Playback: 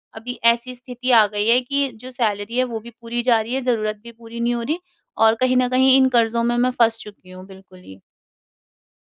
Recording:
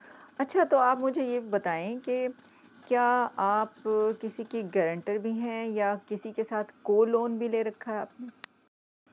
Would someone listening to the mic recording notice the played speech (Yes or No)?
No